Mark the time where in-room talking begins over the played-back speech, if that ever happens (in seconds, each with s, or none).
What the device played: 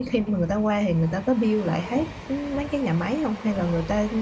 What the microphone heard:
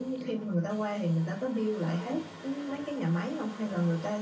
none